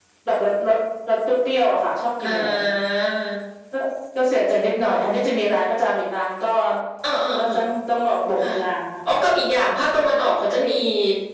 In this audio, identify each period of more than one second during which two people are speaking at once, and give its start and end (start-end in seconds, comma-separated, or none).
none